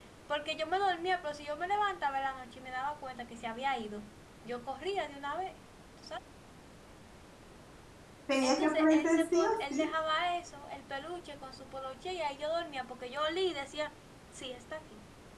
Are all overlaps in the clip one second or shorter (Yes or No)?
No